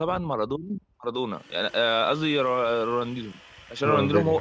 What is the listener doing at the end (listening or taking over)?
listening